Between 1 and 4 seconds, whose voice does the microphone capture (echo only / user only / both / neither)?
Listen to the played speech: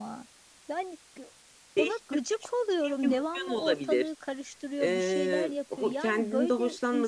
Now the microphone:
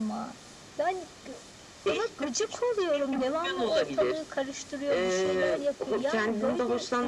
echo only